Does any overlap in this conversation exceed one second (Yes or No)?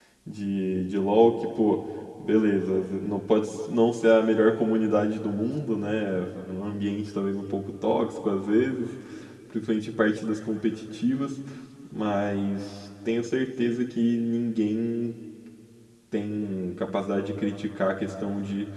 No